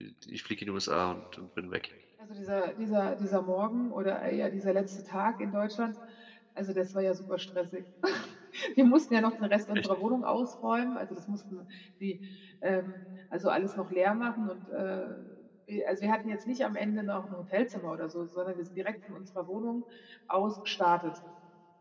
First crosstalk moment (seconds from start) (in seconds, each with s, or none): none